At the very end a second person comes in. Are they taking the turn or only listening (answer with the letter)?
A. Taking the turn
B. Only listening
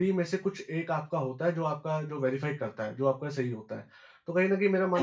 A